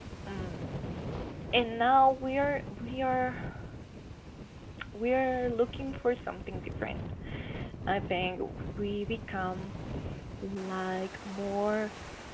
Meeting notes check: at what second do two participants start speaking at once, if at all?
none

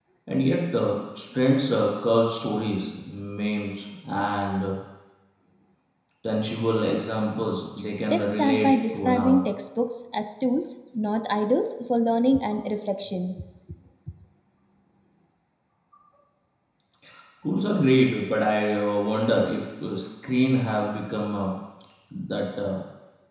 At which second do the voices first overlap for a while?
8.1 s

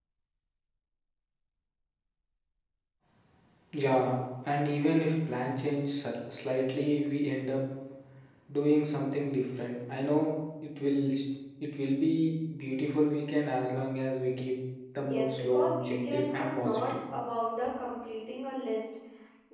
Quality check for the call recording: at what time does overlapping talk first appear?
15.0 s

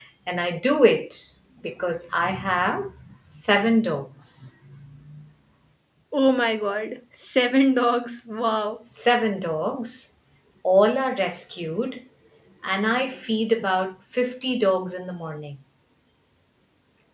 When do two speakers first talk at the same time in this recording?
none

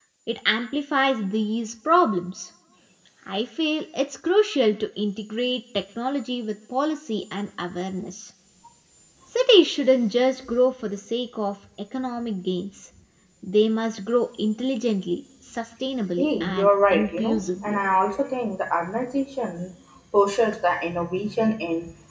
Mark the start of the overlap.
16.2 s

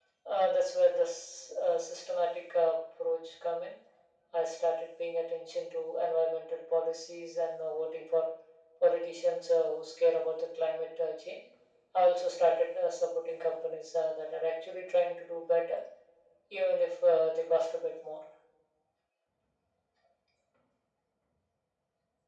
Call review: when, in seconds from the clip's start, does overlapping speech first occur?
none

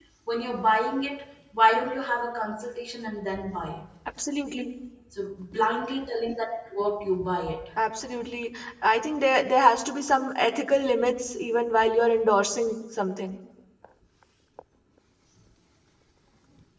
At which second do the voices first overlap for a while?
none

